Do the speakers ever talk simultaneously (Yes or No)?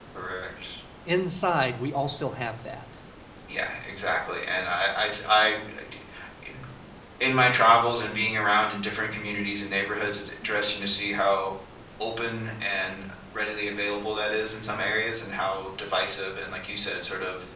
No